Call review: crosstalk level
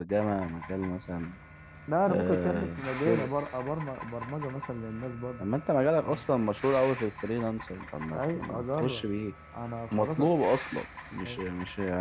present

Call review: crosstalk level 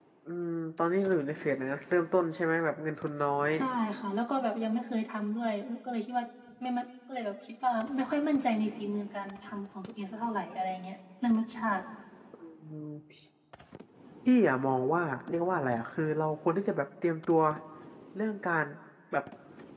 none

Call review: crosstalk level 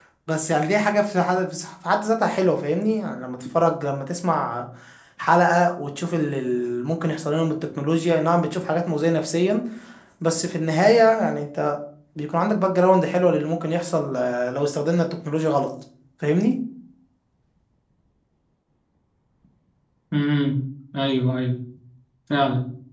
none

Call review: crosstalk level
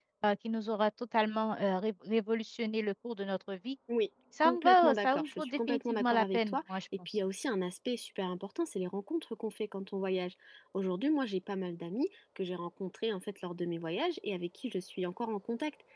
present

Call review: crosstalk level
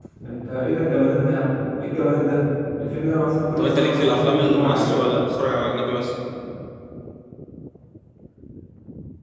present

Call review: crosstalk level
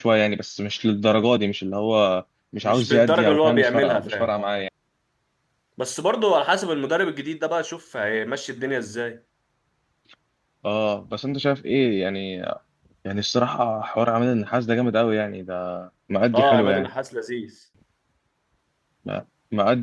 present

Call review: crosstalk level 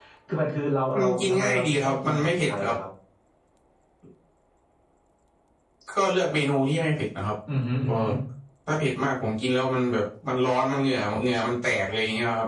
present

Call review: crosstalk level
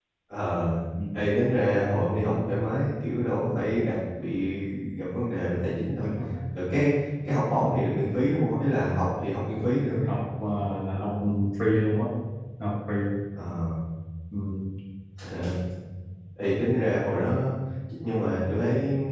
none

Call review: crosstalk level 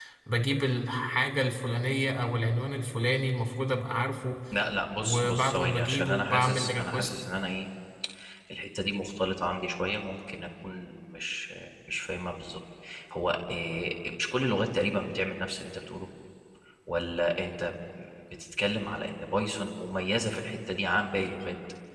present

